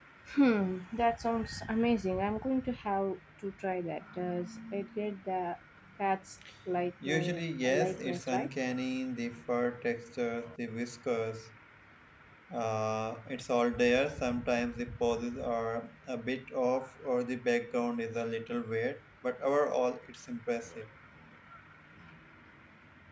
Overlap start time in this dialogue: 7.0 s

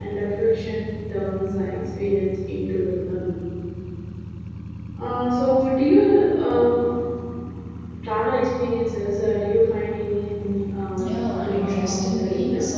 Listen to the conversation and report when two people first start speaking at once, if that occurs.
11.0 s

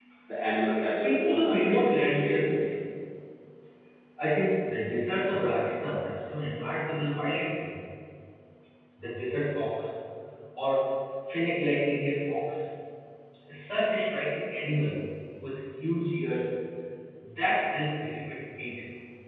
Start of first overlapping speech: 0.7 s

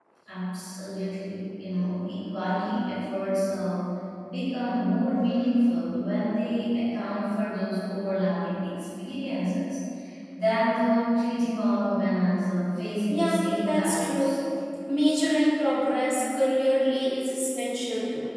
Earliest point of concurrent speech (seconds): 13.1 s

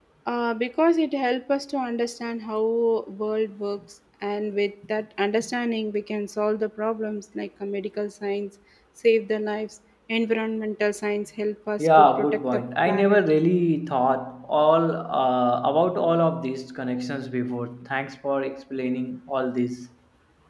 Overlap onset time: 11.8 s

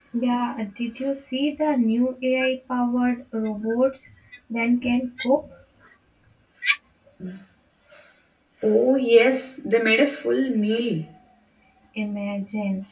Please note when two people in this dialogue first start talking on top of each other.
none

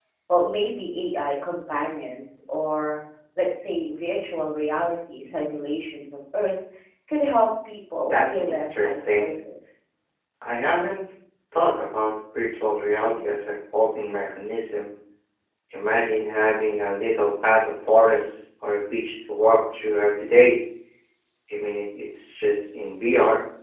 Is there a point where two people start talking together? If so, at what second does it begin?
8.0 s

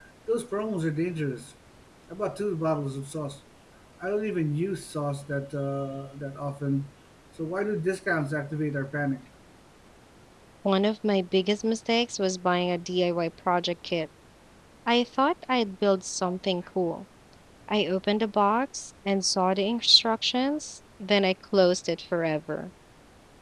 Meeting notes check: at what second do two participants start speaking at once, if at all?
none

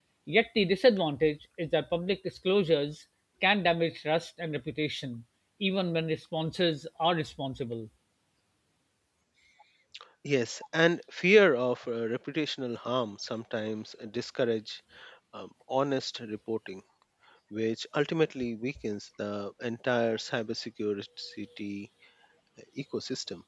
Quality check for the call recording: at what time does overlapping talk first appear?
none

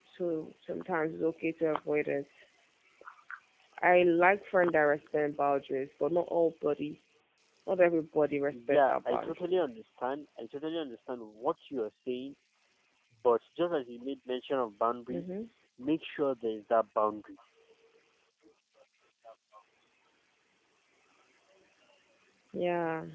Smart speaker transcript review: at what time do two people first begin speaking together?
8.5 s

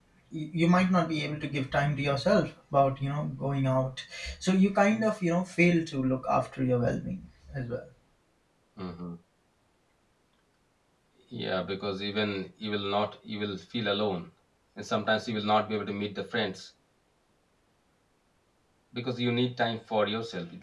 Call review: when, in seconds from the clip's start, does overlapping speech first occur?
none

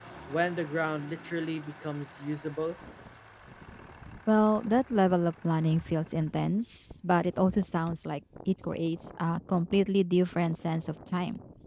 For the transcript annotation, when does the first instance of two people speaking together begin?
none

